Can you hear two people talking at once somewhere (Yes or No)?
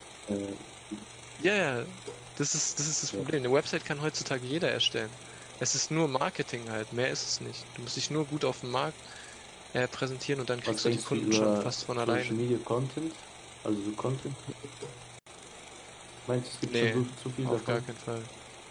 Yes